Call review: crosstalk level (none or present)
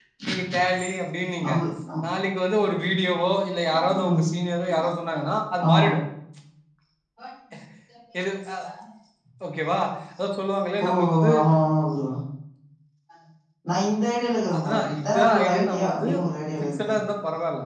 present